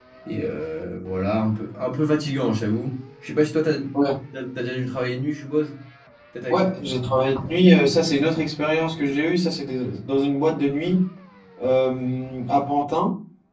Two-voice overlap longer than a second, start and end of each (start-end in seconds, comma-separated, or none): none